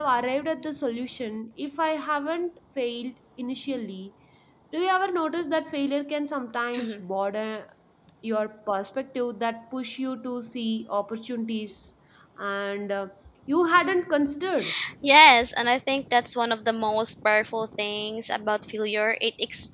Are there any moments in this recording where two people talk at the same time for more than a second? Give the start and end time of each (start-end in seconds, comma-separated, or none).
none